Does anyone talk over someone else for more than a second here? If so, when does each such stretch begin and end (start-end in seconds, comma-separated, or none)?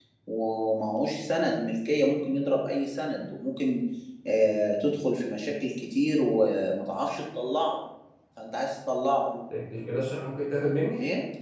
none